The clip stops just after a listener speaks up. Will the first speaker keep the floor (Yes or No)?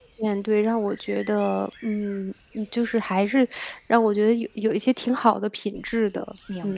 No